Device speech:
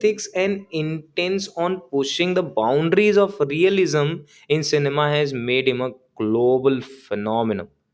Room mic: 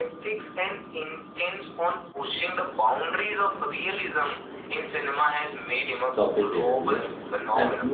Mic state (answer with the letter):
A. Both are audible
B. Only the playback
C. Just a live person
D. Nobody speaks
A